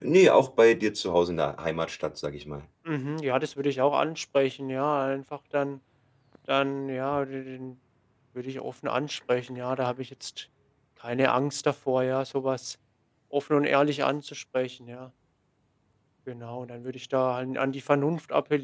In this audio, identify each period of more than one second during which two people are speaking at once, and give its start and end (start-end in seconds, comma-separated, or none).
none